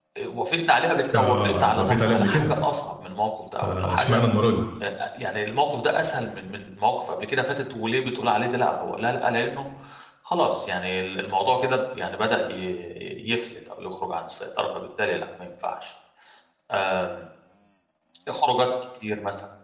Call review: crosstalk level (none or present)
present